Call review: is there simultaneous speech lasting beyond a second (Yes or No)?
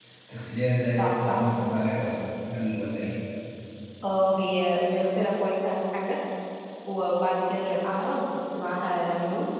No